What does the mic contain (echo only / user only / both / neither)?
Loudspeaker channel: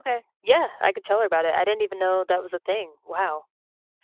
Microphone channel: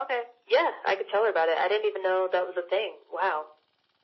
echo only